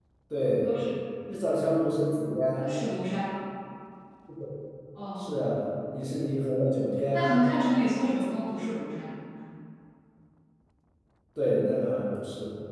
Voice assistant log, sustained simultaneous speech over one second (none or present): none